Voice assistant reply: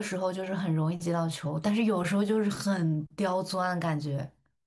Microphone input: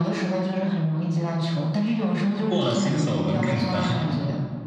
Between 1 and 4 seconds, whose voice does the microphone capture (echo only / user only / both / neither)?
both